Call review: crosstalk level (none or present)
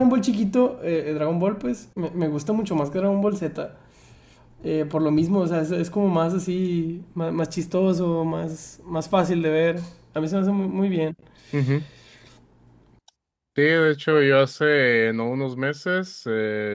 none